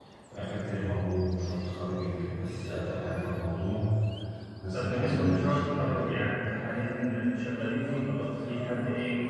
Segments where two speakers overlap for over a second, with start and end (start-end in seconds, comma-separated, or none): 4.7-6.2